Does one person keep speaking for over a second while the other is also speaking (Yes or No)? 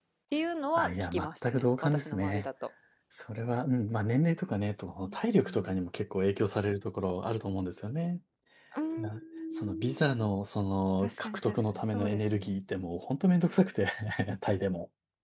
Yes